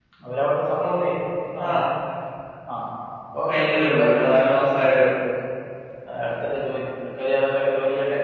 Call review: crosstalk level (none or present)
present